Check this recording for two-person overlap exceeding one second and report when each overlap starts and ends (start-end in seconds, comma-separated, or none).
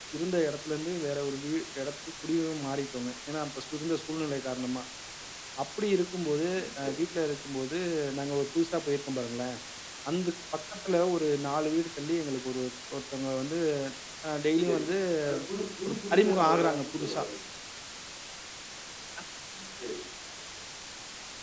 15.9-17.2